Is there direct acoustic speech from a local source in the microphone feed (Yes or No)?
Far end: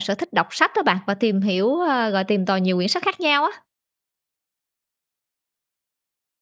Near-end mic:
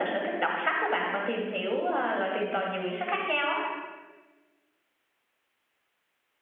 No